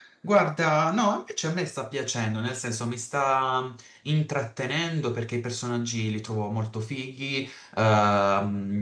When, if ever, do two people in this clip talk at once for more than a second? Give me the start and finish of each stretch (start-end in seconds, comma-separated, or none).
none